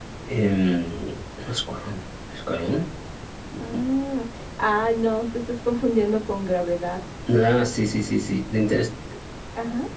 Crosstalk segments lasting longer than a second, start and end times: none

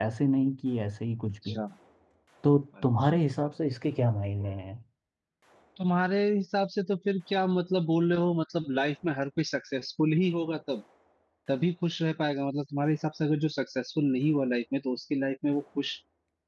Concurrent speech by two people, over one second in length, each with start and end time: none

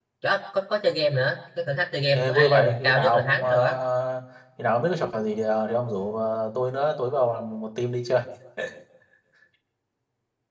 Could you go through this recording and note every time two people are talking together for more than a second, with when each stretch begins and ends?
2.1-3.8

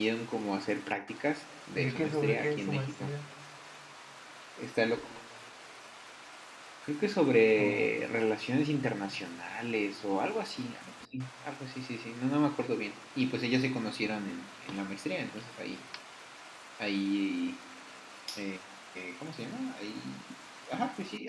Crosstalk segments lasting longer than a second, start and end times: 1.8-3.1

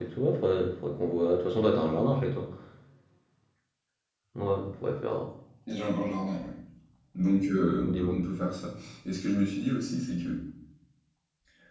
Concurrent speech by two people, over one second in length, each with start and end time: none

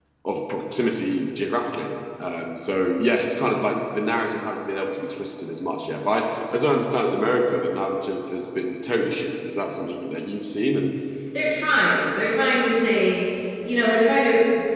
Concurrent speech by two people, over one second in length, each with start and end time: none

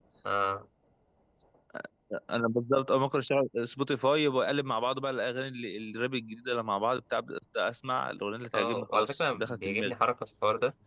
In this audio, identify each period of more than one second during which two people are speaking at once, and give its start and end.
8.5-9.9

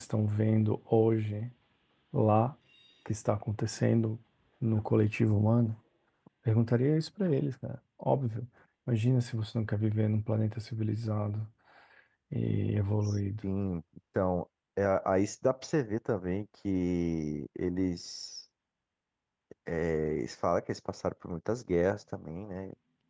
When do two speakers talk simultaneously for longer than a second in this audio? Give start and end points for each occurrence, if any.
none

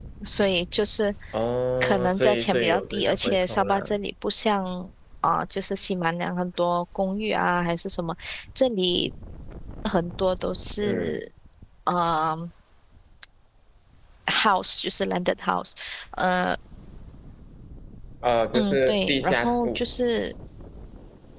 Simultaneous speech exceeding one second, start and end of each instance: 1.8-4.0, 18.5-19.8

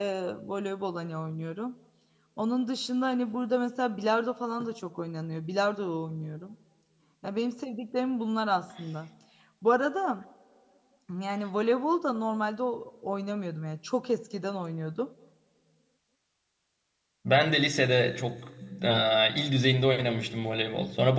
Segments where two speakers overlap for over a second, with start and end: none

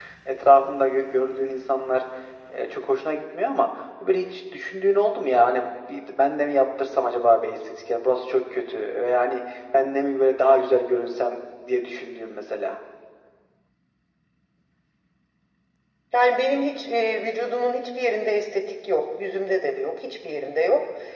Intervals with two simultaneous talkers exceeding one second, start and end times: none

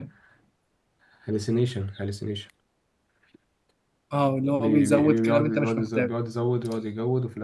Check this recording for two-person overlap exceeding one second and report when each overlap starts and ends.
4.5-6.1

